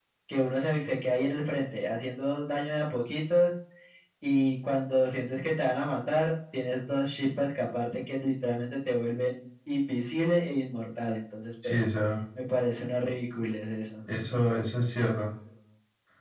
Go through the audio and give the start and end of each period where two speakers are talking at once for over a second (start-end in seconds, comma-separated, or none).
none